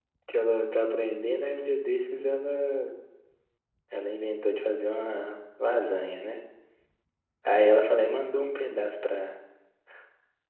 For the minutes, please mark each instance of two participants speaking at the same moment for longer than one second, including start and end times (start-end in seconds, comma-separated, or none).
none